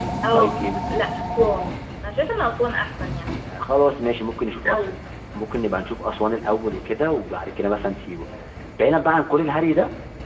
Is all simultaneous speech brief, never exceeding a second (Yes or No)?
Yes